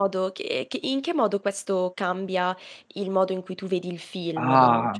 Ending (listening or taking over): taking over